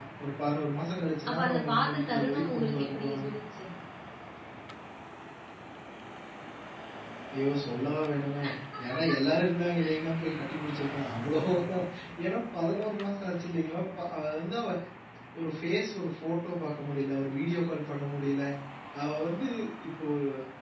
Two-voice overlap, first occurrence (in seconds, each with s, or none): 1.3 s